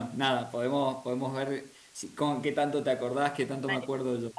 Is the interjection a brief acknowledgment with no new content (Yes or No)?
No